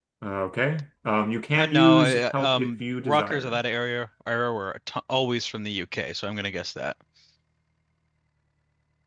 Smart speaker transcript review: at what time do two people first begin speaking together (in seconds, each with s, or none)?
1.5 s